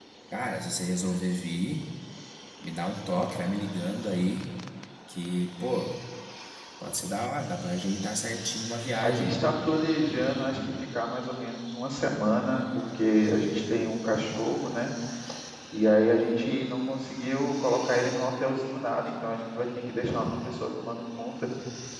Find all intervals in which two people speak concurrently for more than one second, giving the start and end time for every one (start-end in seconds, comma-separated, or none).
none